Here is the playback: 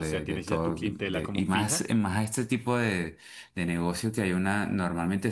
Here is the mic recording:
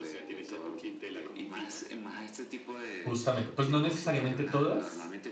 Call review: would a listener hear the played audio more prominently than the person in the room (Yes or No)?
No